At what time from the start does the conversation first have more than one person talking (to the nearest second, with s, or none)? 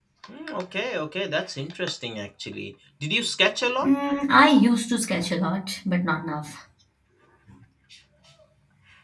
none